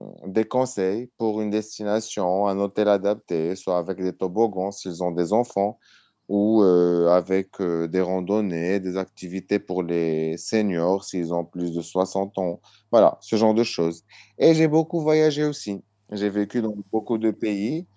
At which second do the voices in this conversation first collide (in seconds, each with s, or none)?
none